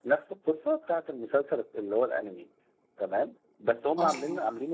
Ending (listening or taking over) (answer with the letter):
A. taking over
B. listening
B